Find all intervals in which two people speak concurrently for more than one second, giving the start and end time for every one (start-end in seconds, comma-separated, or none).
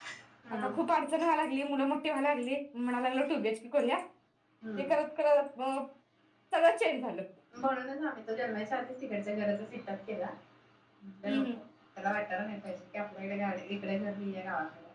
none